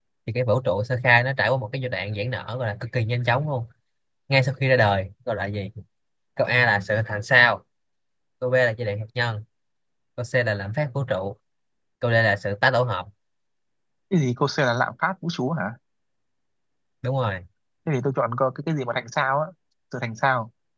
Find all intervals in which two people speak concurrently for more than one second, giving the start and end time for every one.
none

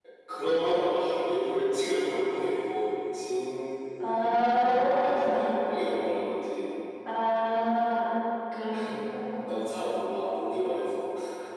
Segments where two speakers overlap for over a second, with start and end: 4.0-5.5

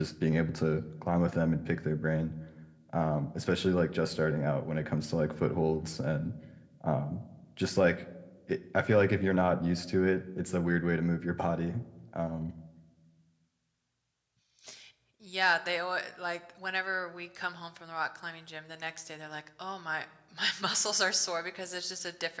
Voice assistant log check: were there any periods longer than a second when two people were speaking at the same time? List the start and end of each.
none

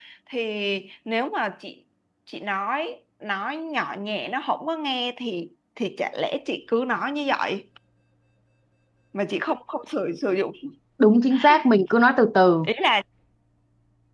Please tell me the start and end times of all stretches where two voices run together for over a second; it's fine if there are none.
none

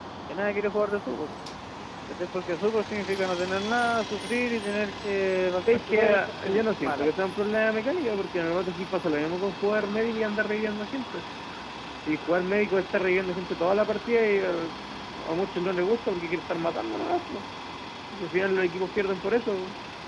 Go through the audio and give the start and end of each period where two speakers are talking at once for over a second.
5.9-7.1

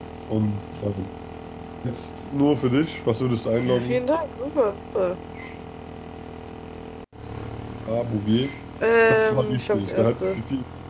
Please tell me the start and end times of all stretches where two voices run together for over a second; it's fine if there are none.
9.1-10.4

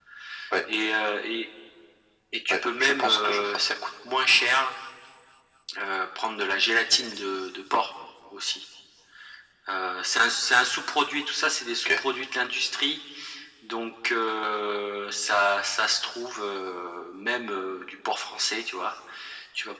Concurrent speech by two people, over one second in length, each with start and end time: 2.5-3.7

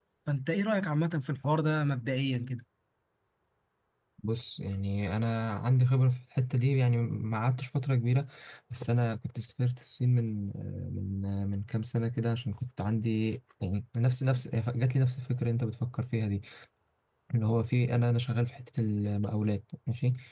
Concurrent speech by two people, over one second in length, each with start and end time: none

